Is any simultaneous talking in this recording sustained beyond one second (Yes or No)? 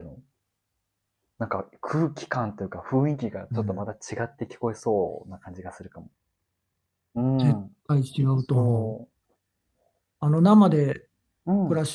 No